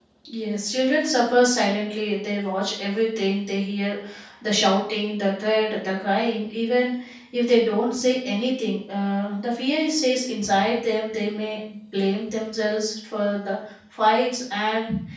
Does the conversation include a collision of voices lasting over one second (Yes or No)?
No